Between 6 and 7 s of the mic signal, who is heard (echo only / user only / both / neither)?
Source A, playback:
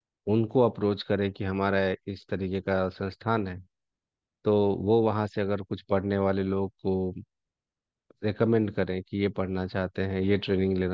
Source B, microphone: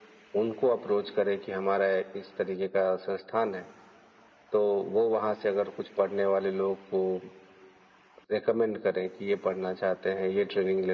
echo only